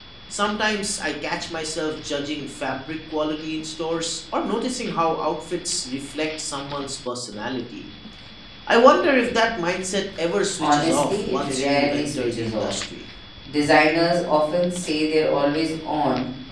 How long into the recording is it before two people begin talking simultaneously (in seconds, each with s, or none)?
10.6 s